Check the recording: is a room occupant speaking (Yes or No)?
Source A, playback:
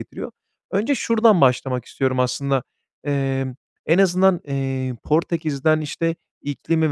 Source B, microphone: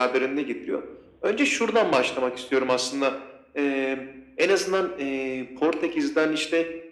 No